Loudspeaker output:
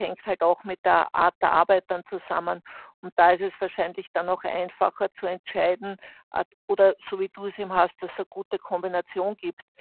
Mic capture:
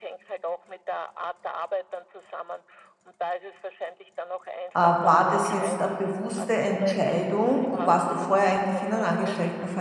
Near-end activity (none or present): present